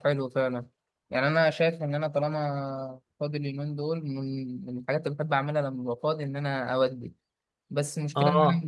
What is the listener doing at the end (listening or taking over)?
listening